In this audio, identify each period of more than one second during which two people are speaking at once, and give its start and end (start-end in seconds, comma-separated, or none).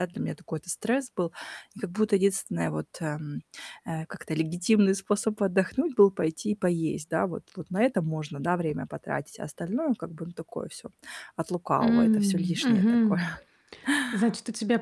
11.8-13.3